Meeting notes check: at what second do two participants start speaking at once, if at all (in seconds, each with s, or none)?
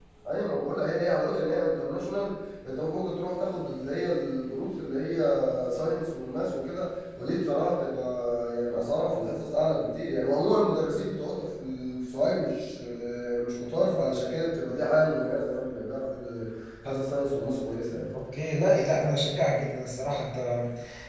none